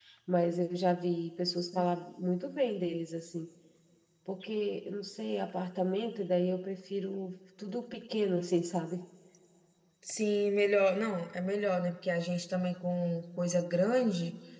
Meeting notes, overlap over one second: none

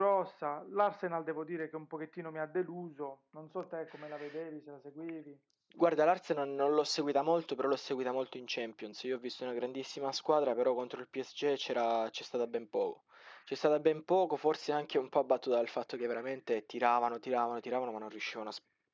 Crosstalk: none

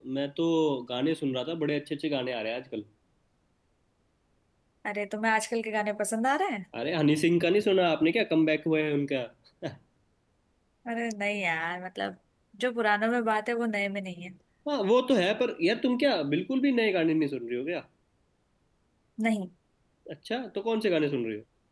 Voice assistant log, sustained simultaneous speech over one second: none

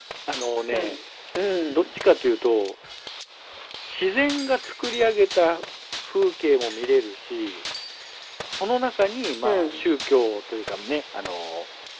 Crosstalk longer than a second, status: none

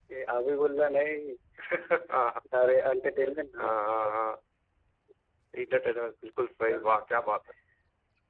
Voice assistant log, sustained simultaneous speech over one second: none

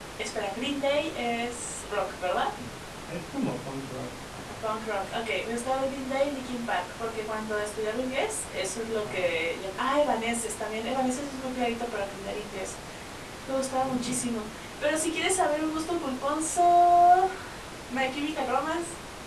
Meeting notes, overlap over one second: none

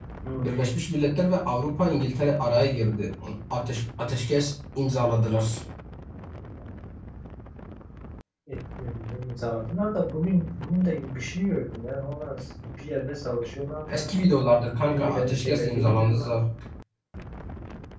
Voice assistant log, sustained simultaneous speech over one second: present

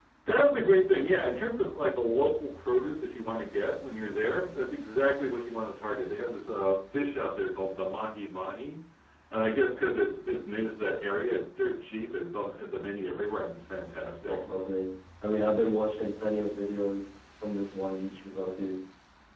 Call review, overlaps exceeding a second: none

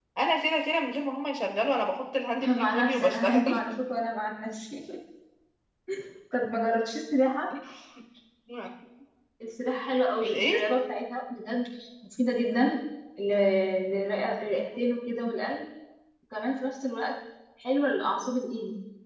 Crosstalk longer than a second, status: present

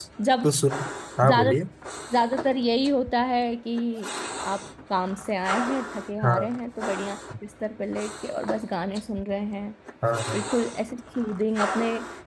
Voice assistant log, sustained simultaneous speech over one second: none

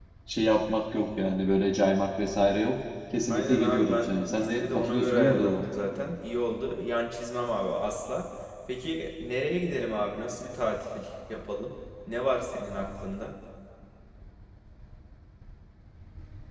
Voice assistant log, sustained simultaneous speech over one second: present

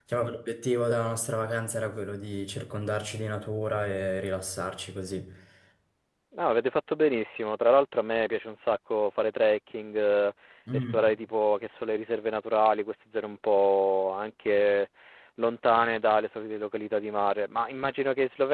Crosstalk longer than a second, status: none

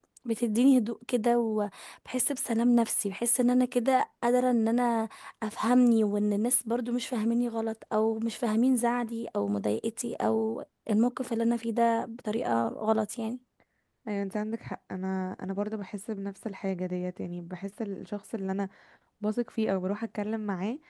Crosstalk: none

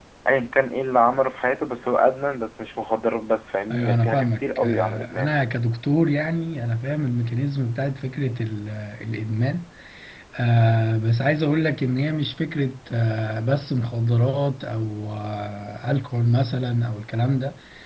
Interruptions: present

